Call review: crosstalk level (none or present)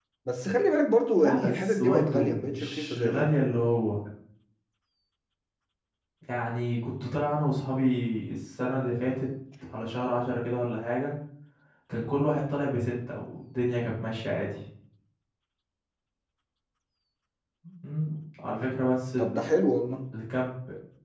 present